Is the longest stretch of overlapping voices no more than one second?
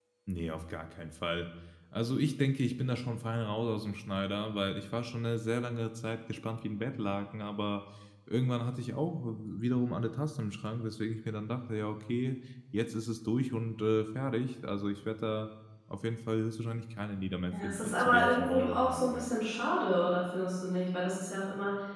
No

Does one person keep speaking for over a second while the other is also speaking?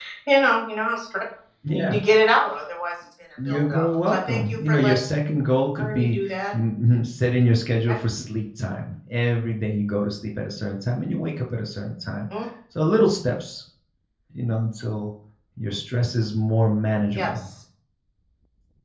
Yes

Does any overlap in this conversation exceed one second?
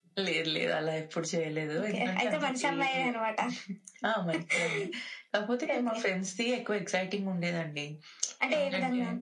Yes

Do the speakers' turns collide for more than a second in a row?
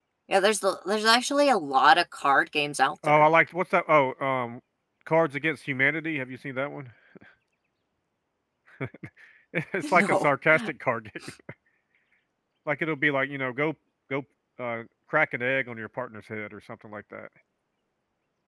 No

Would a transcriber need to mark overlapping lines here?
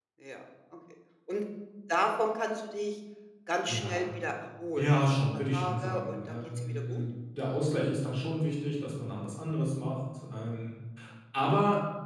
Yes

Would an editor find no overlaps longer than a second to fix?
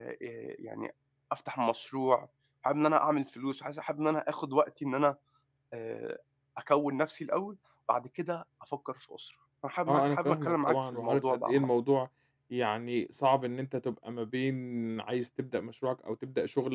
No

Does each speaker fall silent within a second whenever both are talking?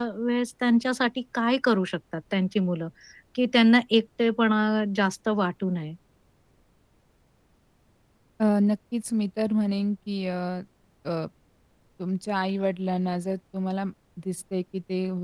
Yes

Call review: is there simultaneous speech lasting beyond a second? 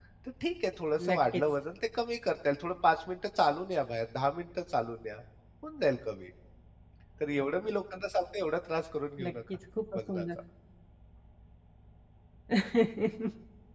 No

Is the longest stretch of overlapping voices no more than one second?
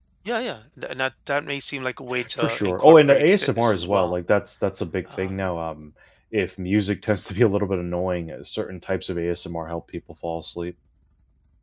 No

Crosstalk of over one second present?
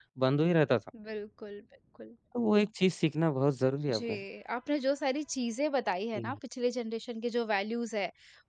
No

